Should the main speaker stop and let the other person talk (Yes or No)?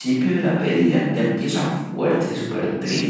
Yes